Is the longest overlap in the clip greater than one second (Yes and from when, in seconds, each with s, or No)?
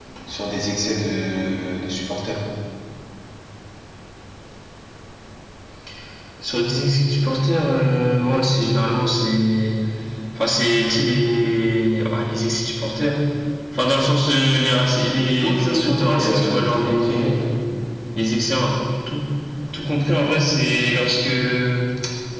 Yes, from 15.4 s